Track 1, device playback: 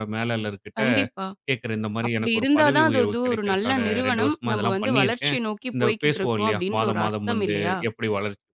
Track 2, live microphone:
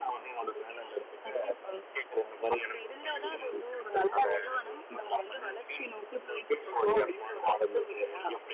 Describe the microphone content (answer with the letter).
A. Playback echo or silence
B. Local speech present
A